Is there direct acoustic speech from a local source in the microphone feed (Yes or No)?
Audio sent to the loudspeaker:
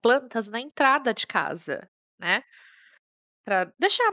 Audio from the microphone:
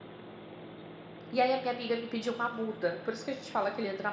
Yes